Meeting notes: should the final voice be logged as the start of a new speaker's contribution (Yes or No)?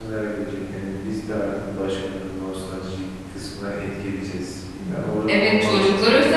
Yes